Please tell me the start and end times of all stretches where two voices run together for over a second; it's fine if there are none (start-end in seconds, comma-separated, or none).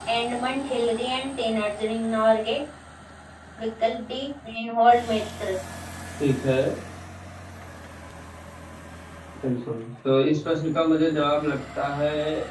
none